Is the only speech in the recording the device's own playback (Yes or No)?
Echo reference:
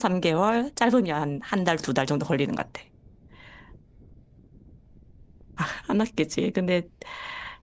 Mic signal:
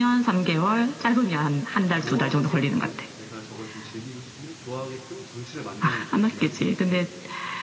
No